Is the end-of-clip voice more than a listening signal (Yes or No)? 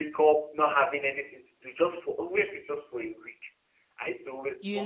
No